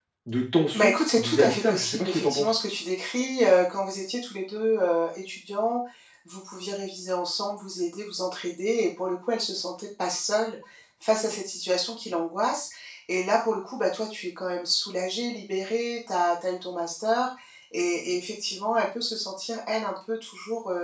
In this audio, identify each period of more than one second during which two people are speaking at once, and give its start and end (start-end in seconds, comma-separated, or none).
0.7-2.5